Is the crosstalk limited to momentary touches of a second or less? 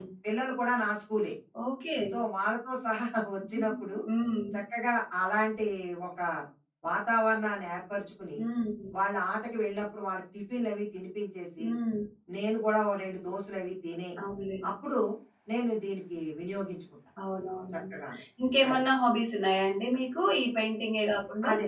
Yes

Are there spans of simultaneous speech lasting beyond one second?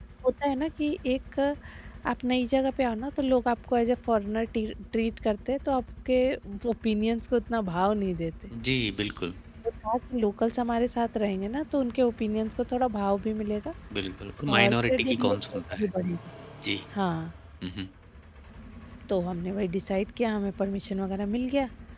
Yes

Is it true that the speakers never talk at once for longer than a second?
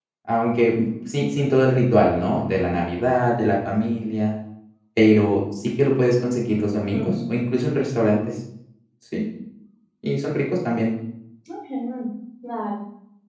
Yes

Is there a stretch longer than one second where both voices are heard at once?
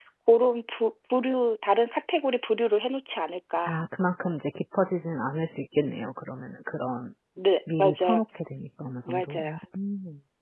No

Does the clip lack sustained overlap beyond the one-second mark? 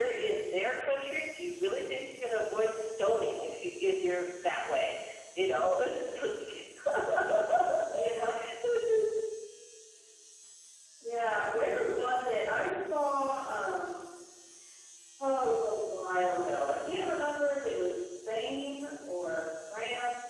Yes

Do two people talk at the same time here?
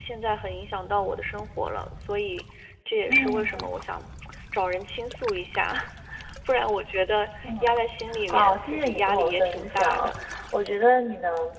Yes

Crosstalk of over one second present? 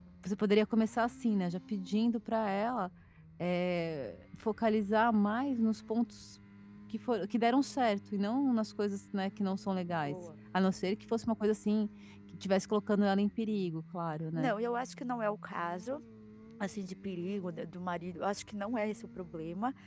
No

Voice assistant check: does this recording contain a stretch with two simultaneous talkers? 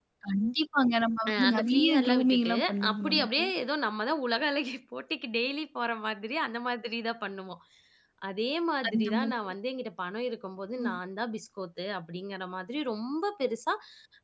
Yes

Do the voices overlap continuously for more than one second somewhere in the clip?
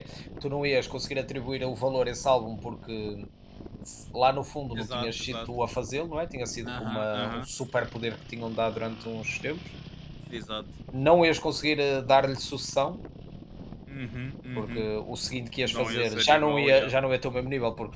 Yes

